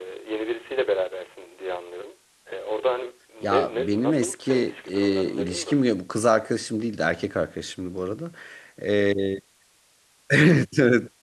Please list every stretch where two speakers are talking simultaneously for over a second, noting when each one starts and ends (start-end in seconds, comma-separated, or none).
3.4-5.9